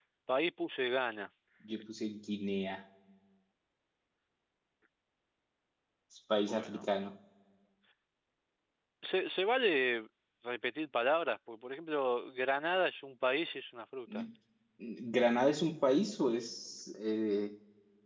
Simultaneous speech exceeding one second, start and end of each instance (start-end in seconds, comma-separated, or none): none